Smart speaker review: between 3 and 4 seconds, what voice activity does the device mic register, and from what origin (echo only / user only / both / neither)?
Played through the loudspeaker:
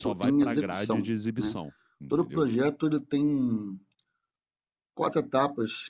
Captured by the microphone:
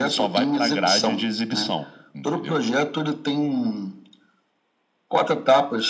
echo only